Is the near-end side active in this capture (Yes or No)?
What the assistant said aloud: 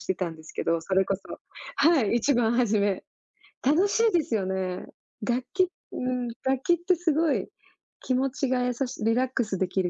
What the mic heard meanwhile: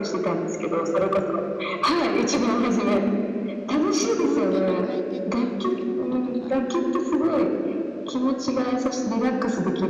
Yes